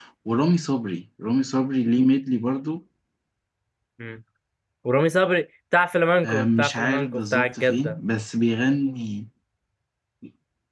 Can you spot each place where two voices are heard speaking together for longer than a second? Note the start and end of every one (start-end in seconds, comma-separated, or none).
6.2-8.0